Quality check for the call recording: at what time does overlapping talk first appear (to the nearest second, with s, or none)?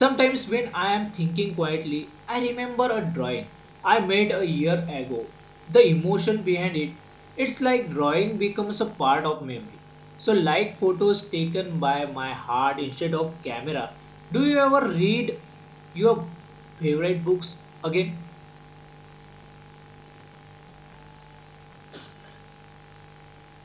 none